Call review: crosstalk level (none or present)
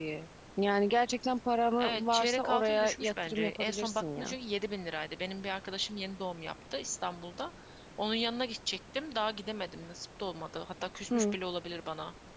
present